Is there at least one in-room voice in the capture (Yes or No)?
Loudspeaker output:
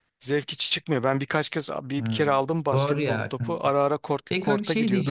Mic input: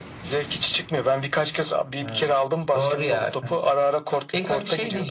No